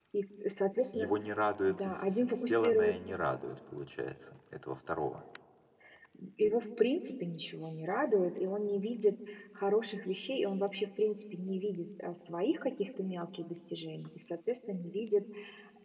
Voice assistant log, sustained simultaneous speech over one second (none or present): present